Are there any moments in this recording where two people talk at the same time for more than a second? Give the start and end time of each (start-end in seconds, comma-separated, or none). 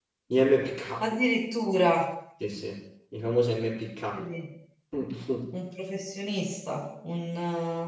none